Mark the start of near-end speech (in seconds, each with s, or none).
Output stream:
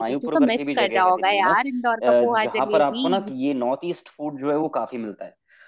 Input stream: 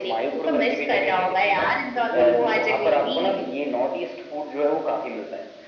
1.9 s